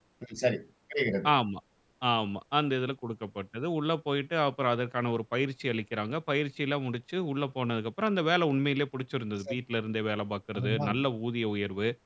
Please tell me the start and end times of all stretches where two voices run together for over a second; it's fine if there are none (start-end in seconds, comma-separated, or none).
none